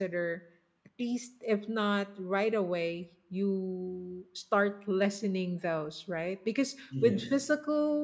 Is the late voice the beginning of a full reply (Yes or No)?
No